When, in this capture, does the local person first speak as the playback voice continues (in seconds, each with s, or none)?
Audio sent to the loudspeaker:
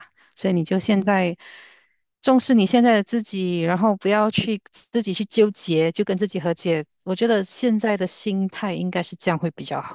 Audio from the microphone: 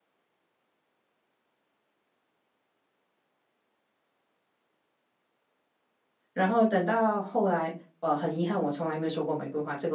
6.3 s